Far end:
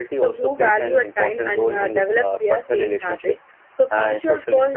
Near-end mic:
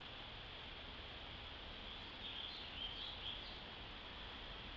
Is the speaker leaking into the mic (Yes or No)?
No